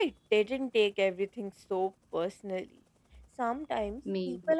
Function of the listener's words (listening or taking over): listening